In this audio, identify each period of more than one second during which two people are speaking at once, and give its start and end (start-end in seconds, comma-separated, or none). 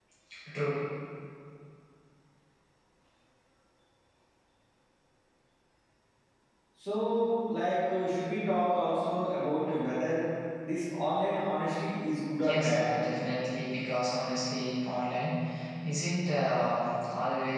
none